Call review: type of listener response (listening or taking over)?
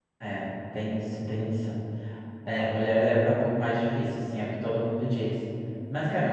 listening